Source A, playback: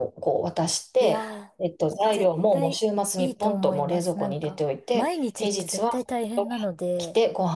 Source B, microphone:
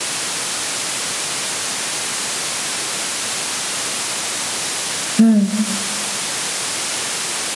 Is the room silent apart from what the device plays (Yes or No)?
No